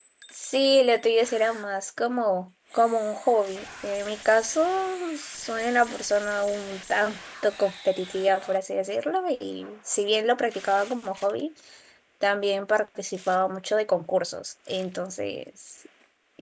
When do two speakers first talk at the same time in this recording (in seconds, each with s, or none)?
none